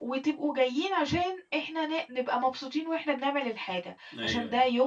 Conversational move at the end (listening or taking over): listening